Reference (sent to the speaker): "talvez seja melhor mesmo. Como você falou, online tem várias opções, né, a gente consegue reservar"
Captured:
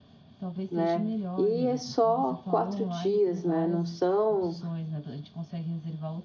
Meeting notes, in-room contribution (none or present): present